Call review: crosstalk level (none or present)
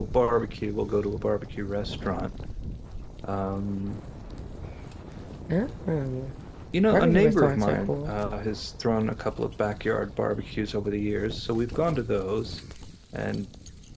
present